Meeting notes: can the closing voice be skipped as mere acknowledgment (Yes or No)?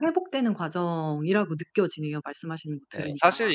No